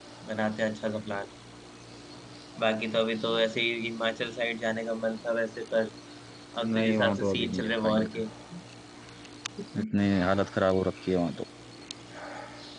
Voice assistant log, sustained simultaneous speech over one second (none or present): present